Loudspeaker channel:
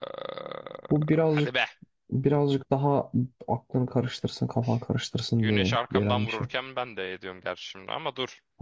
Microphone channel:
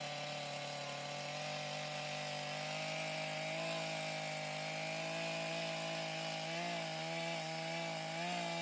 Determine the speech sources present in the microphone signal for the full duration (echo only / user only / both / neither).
neither